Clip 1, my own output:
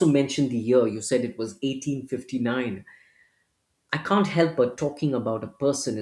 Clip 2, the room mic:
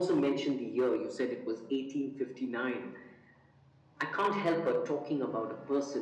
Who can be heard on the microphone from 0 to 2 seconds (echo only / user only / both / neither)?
echo only